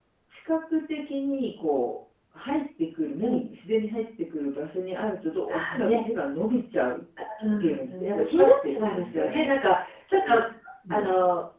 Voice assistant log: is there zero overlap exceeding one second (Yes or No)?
No